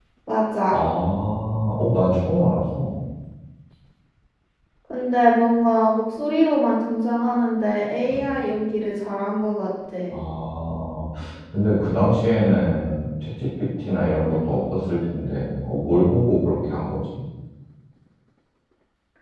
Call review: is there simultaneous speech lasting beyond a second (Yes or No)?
No